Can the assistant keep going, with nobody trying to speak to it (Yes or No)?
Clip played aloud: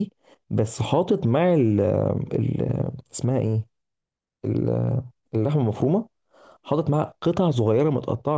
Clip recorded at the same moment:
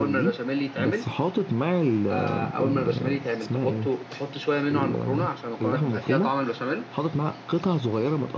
No